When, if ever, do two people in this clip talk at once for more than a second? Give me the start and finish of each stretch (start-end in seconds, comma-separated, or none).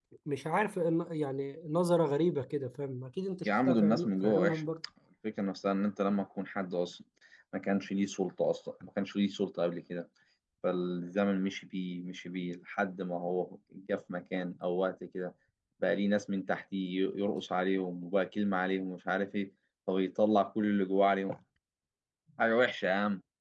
3.5-4.7